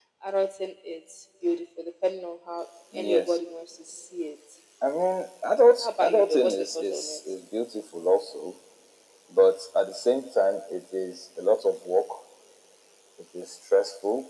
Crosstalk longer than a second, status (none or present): present